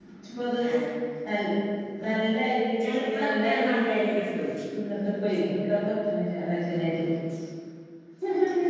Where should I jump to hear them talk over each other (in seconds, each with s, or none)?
2.8 s